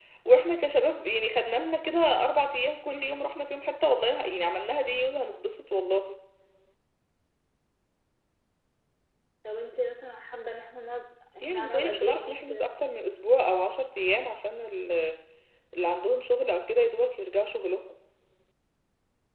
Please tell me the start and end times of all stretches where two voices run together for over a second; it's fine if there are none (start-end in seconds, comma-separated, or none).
11.4-12.7